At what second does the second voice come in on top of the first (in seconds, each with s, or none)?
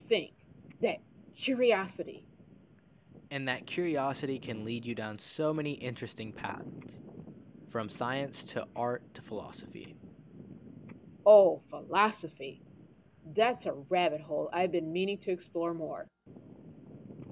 none